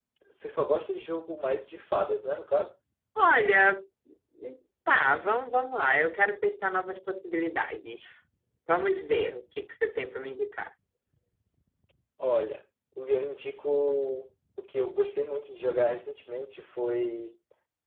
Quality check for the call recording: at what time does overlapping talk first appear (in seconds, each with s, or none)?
none